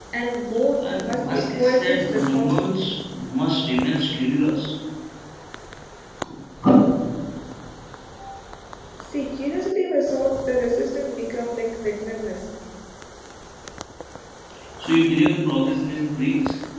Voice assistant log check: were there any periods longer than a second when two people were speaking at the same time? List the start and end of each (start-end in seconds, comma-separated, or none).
1.0-2.8